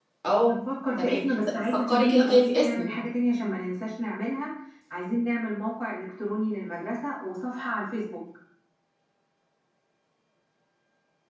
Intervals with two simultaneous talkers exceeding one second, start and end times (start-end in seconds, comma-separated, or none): 1.0-2.9